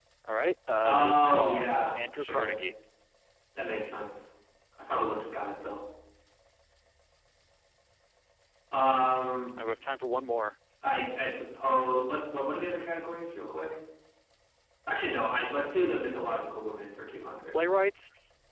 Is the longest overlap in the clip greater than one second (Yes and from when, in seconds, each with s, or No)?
Yes, from 0.8 s